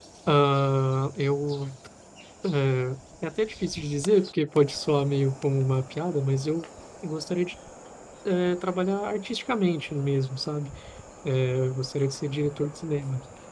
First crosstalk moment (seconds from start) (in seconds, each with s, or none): none